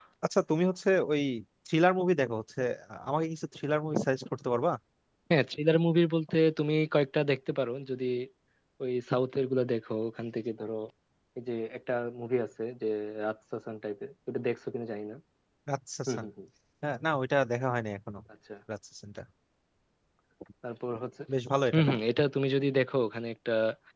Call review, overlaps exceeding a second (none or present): none